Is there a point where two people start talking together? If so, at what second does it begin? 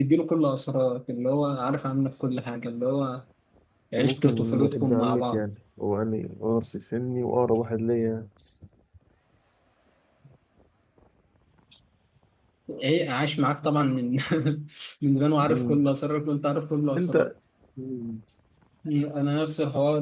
4.0 s

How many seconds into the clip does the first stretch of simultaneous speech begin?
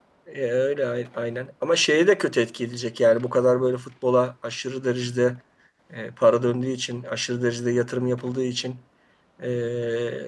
none

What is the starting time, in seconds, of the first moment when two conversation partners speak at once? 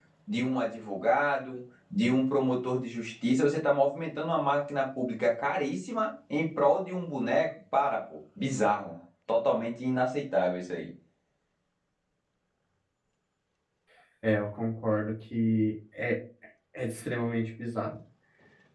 none

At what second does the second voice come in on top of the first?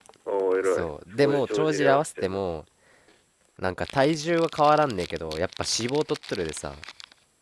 0.6 s

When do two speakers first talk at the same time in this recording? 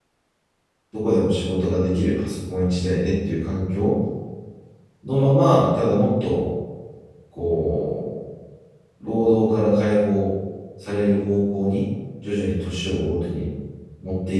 none

